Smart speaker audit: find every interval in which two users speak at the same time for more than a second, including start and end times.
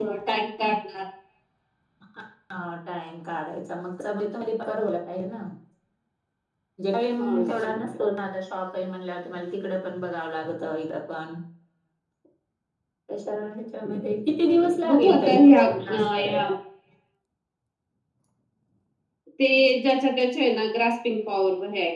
14.9-16.5

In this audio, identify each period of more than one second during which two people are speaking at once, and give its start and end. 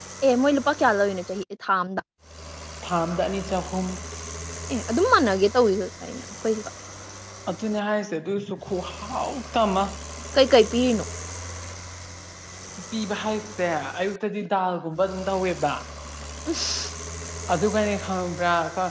none

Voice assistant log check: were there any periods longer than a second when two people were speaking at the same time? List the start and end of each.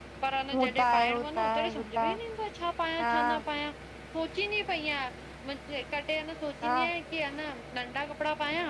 0.5-2.1

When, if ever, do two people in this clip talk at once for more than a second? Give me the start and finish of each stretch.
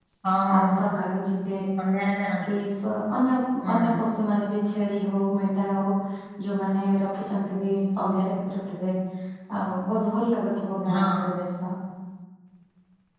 none

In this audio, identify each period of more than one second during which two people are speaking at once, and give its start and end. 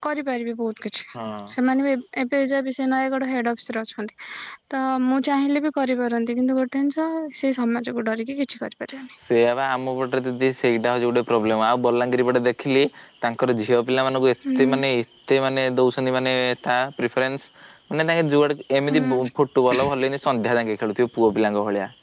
none

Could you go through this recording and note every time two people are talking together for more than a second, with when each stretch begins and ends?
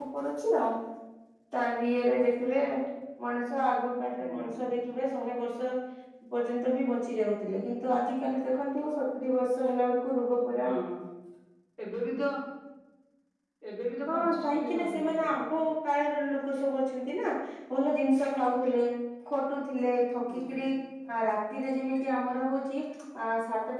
14.1-15.3

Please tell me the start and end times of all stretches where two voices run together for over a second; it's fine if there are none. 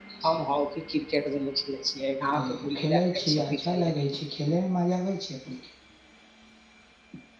2.4-3.9

